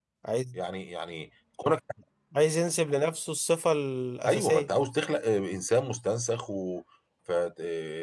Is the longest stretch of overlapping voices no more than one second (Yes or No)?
Yes